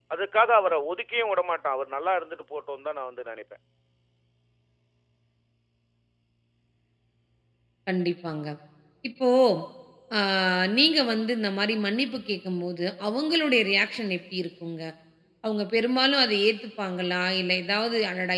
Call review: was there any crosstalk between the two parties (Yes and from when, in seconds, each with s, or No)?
No